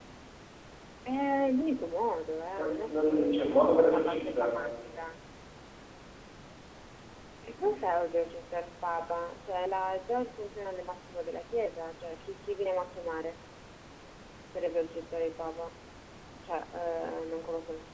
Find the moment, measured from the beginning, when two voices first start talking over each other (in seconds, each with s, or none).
2.5 s